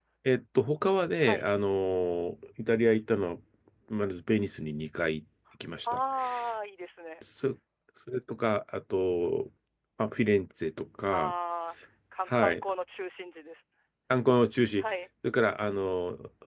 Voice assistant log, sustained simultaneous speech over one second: none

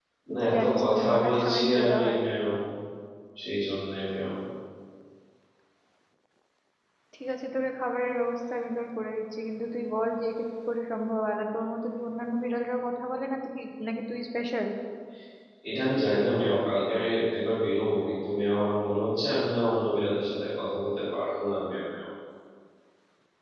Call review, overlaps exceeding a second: present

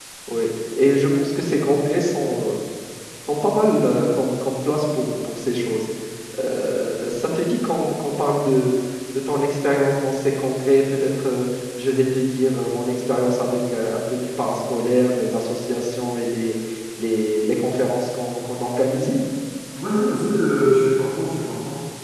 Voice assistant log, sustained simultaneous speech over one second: none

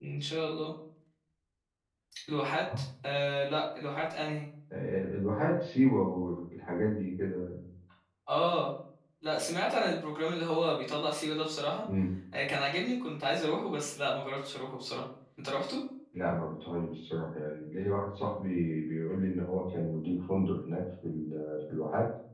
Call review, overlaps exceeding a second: none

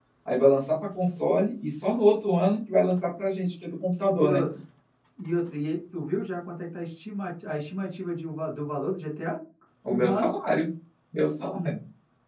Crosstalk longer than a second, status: none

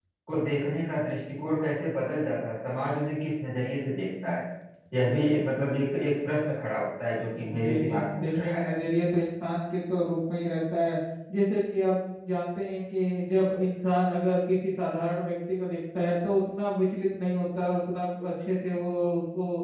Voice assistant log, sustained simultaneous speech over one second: present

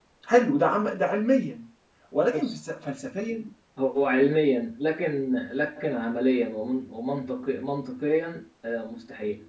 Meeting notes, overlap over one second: none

